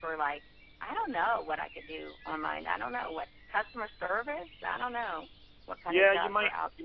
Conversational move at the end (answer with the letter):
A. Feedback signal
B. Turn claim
B